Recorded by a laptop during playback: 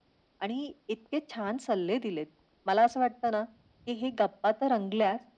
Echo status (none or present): present